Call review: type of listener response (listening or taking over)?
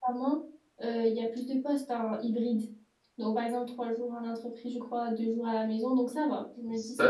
taking over